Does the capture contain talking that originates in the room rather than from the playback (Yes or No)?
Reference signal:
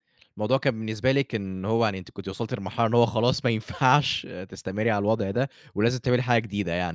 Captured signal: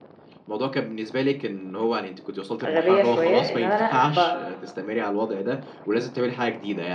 Yes